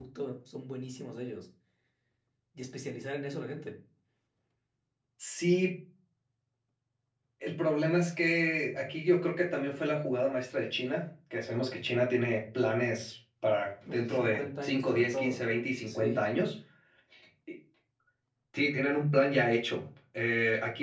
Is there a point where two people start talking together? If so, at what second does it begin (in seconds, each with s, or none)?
13.9 s